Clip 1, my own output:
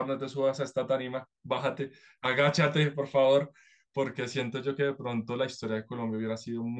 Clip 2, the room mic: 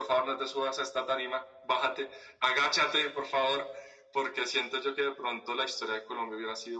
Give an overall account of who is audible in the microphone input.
echo only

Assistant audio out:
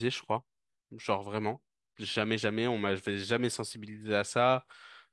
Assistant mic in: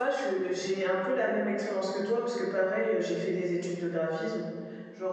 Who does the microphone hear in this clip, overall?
user only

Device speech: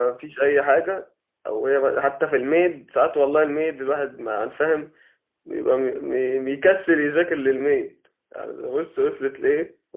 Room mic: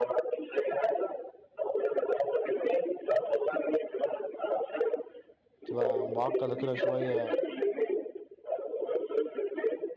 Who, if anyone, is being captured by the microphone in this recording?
both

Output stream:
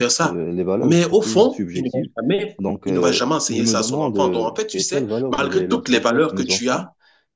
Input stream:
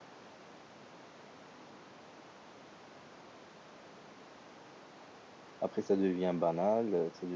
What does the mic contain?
user only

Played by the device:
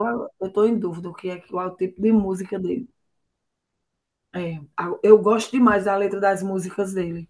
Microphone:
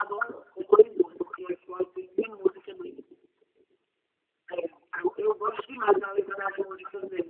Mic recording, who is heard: echo only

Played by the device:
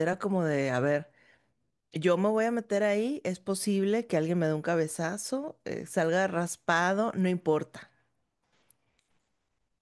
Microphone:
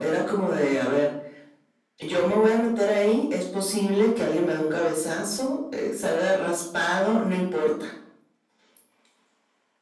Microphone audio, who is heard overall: echo only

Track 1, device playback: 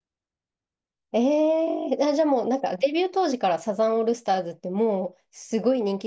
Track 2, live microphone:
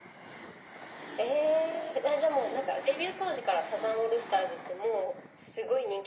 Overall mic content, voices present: echo only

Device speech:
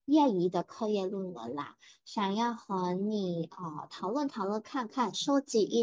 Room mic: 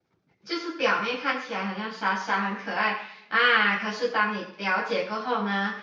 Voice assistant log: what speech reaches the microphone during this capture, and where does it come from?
user only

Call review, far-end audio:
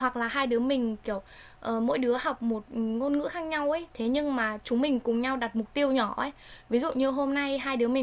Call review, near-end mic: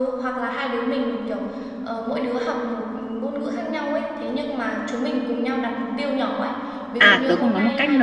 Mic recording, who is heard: both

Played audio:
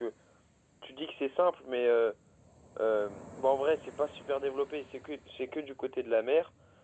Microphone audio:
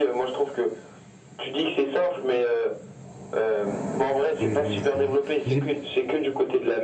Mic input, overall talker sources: both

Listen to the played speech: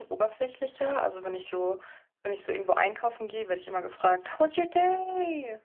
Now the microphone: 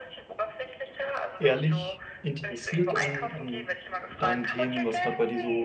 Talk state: both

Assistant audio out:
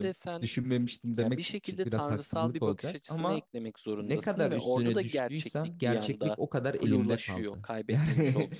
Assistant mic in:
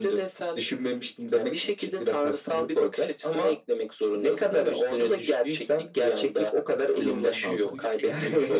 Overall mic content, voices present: both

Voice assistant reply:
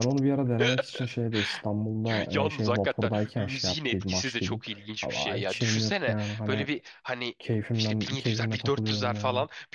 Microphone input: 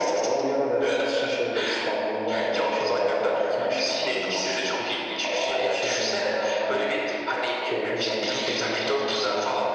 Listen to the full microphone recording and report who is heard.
echo only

